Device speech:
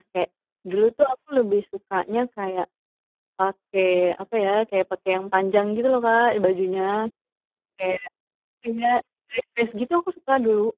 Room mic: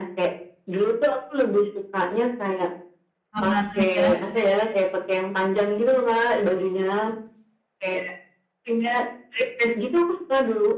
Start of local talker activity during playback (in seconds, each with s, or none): 3.3 s